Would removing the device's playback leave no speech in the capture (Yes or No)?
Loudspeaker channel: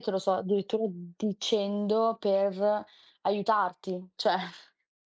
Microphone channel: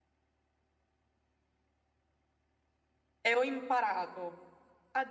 No